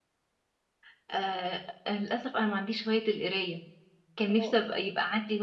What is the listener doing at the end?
listening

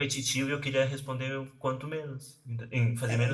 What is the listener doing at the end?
taking over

